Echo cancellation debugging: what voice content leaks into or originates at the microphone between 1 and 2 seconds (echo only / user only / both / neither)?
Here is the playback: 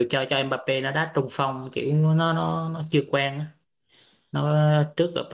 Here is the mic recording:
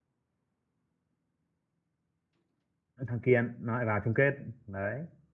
neither